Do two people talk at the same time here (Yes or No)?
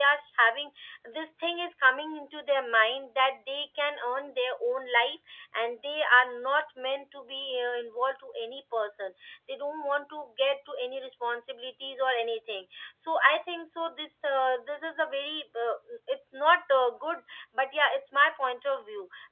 No